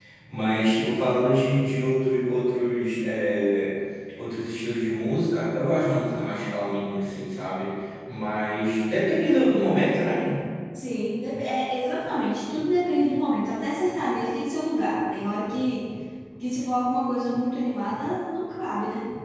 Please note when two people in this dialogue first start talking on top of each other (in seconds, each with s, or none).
none